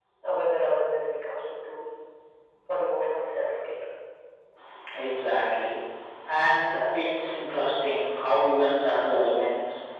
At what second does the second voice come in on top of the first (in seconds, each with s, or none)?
none